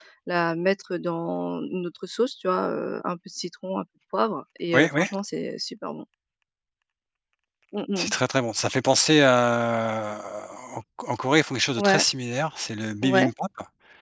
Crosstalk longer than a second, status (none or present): none